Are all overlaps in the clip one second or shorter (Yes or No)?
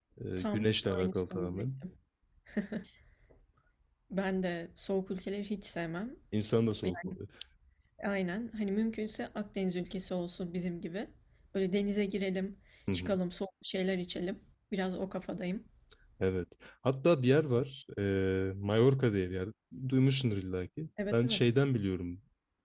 No